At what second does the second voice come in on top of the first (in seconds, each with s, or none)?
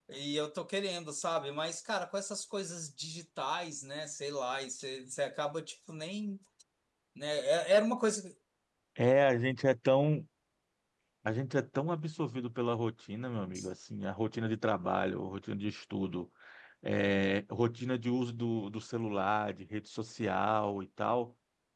none